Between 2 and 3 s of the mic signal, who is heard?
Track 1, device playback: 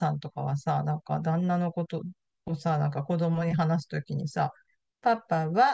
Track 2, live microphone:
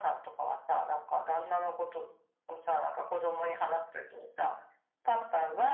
echo only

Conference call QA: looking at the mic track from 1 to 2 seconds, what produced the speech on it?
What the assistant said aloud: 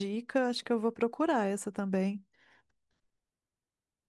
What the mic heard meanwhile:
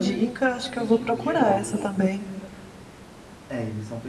both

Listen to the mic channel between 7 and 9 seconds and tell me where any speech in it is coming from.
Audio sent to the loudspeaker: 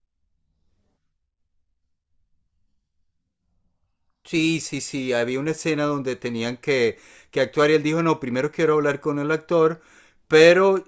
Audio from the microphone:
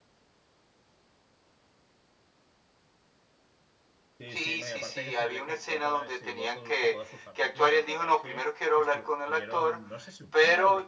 both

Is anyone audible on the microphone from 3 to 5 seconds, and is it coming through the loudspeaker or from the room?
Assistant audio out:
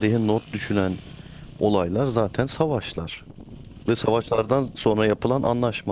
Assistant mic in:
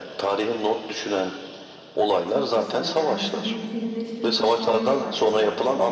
both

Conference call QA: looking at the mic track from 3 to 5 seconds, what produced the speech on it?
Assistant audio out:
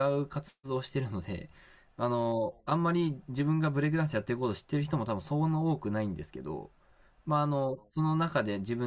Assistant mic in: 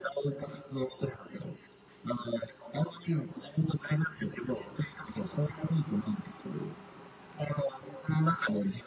echo only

